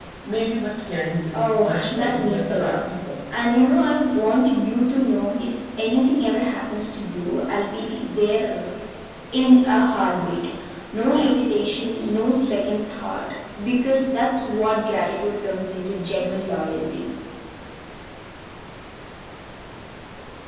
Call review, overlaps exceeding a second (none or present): present